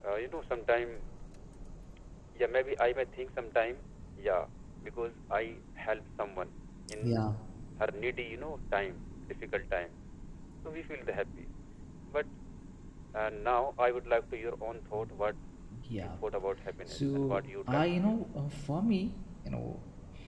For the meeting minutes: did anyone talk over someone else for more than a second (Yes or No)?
Yes